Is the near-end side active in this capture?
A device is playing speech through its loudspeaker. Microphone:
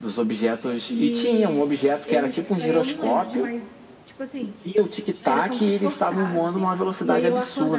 Yes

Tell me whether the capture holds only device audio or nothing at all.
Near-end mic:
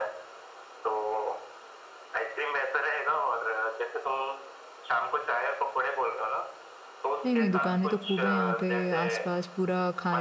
No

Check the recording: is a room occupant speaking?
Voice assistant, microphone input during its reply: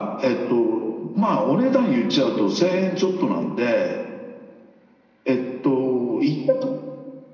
No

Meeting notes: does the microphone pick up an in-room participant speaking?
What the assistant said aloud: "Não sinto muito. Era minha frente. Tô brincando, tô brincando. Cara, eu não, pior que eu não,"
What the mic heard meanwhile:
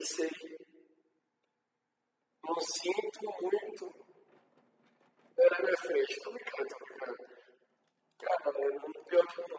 No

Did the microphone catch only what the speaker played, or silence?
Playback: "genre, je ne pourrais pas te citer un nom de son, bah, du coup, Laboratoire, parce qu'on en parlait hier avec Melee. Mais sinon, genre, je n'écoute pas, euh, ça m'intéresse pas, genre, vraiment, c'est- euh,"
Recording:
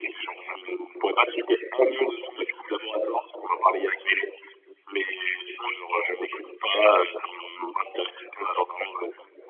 Yes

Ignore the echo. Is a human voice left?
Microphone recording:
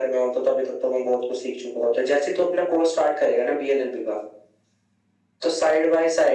No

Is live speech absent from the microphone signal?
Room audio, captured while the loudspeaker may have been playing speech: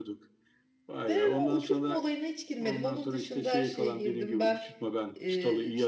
No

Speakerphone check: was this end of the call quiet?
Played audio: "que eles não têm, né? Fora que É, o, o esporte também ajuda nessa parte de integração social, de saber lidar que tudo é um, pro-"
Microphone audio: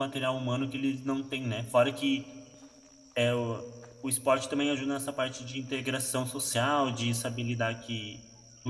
Yes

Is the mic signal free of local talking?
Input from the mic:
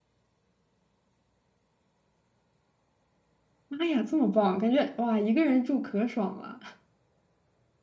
No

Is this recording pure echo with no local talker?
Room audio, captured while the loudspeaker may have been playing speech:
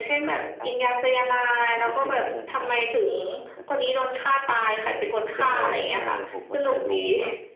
No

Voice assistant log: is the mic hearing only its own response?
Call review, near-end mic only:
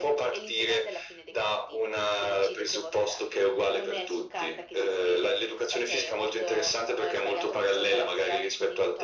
Yes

